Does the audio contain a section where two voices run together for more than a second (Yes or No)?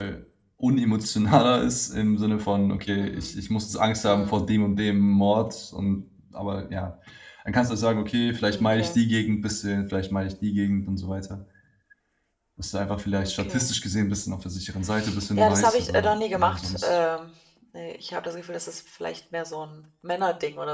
Yes